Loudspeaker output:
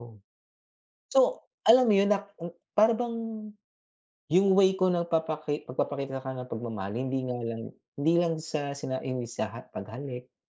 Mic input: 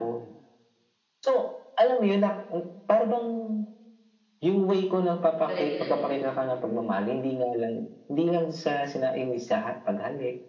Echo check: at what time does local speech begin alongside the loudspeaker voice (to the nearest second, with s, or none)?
5 s